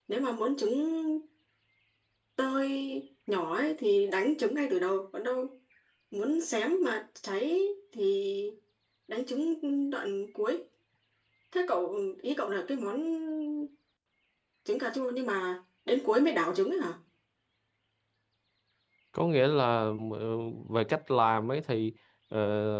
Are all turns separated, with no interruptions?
Yes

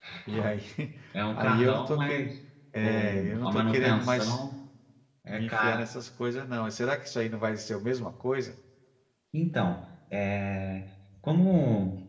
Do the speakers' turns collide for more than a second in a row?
Yes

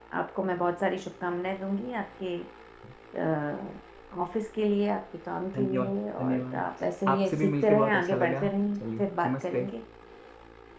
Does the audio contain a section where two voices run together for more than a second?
Yes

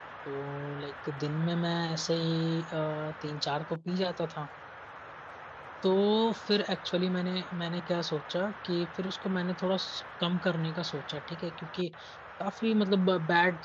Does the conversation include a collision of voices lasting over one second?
No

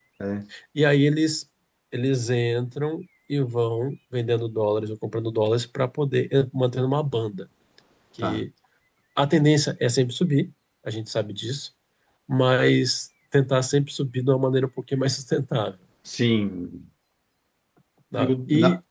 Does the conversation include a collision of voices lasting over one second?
No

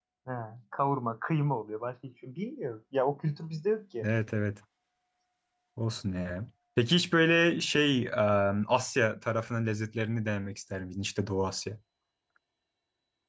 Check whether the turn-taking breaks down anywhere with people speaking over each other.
No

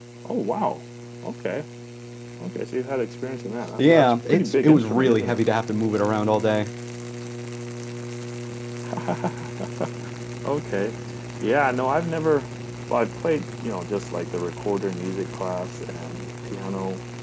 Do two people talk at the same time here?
Yes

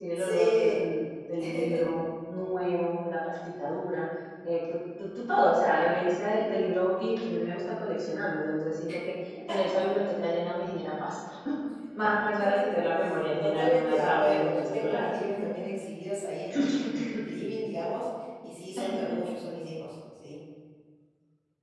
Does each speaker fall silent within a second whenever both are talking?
No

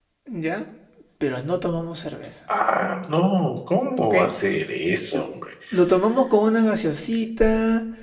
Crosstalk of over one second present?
No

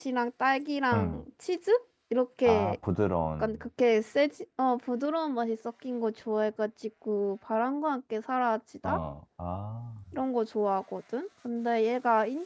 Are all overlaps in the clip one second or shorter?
Yes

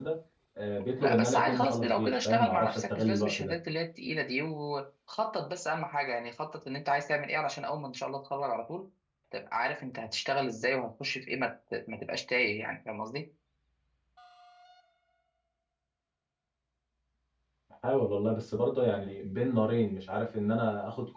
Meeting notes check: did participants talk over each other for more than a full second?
Yes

